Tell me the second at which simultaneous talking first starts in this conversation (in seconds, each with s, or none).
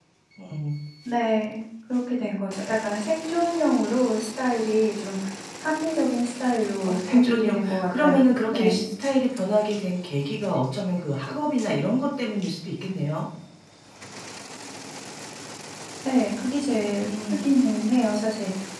6.8 s